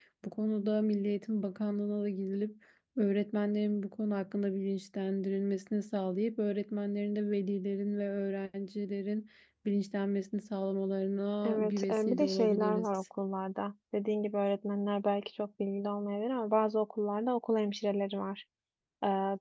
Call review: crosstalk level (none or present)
present